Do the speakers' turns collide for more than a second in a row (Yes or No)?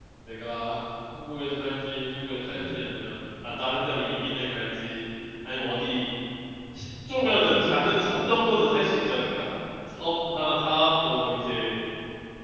Yes